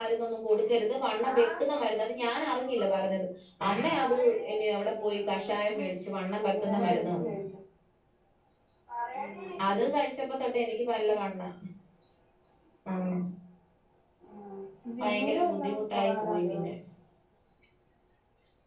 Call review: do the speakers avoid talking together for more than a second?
No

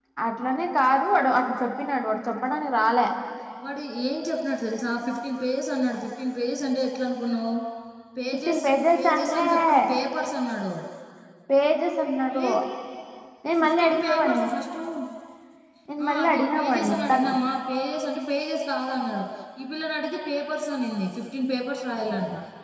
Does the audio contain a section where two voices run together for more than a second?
Yes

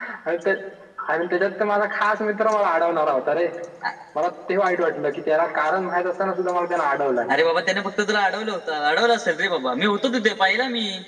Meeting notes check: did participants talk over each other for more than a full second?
No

